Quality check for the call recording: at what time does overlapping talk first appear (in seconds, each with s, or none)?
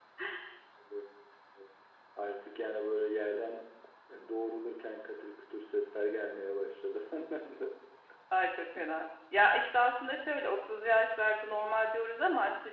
none